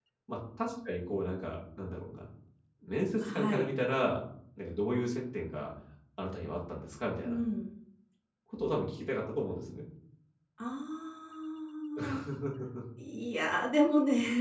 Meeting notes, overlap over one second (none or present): none